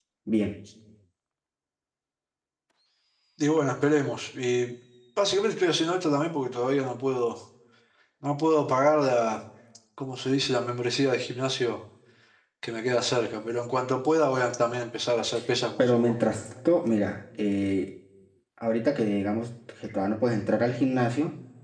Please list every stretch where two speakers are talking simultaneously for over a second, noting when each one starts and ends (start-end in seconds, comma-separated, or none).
none